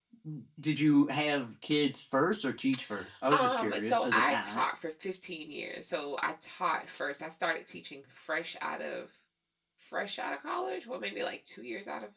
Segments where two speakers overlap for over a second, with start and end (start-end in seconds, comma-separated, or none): 3.3-4.6